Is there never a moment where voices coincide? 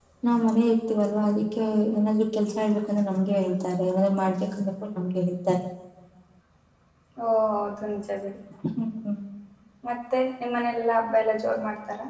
Yes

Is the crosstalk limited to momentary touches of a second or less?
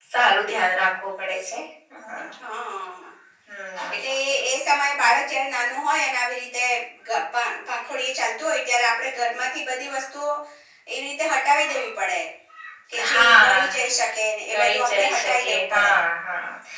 No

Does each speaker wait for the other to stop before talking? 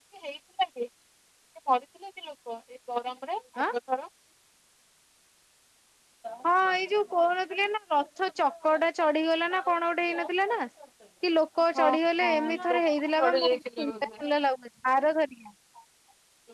No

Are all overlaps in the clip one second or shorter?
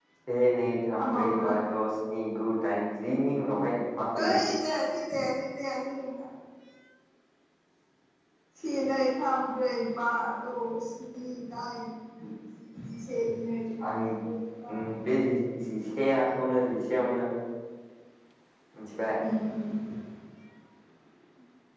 Yes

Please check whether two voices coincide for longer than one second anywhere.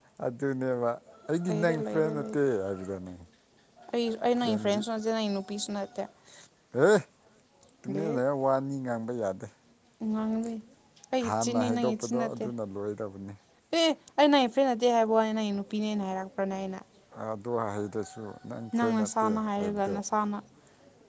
Yes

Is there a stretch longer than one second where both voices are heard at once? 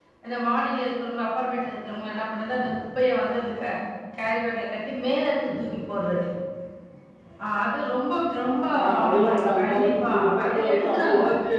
Yes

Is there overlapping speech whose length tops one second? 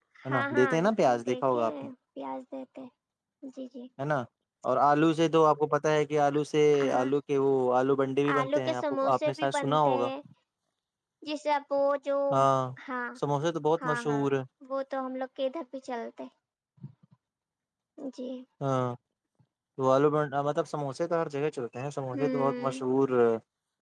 Yes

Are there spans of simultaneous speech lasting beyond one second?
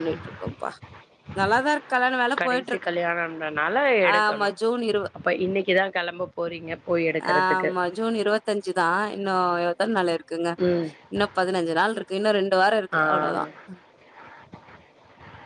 No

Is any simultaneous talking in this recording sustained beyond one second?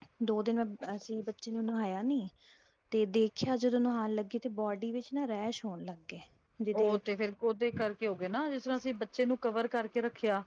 No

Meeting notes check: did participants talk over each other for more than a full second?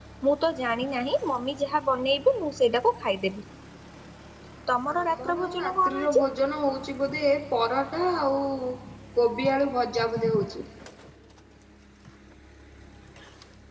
Yes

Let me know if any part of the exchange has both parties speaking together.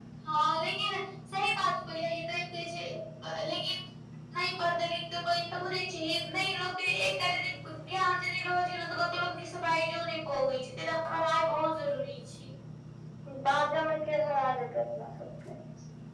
No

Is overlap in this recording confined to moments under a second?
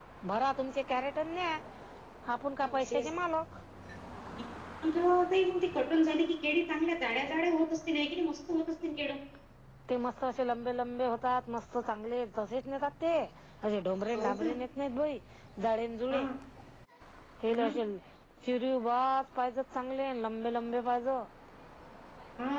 Yes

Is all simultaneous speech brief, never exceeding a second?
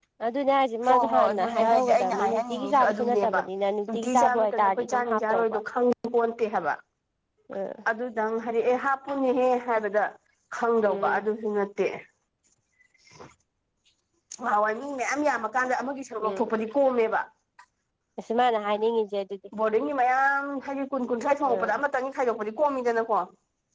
No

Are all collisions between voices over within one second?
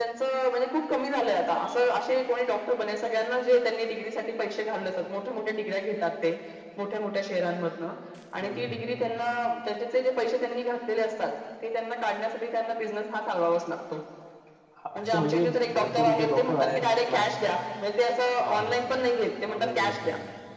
No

